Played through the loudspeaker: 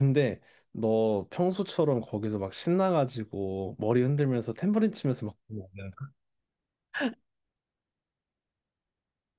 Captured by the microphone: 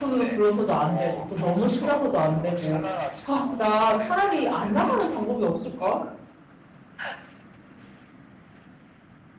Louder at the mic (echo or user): user